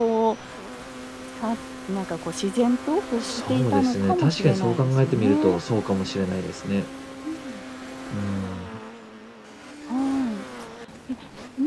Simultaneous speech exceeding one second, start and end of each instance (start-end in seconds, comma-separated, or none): 3.2-5.6